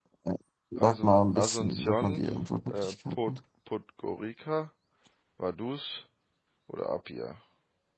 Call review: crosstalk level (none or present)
present